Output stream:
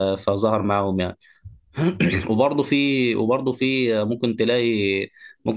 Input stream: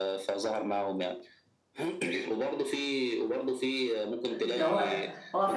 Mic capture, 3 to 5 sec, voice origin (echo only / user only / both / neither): both